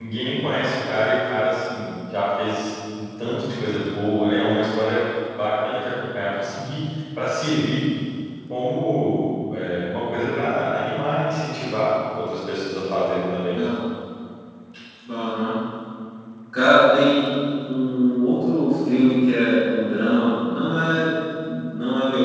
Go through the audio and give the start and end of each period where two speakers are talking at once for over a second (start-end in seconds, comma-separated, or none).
none